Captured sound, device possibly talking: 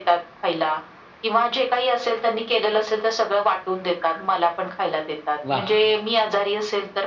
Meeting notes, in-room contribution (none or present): present